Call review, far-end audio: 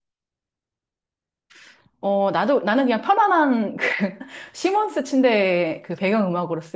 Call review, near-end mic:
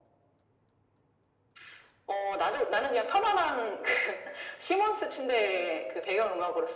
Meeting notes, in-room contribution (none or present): none